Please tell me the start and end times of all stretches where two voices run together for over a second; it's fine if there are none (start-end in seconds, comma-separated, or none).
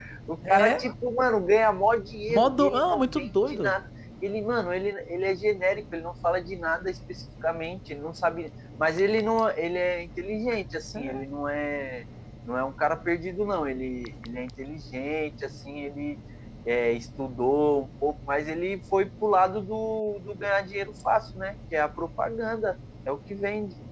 2.3-3.7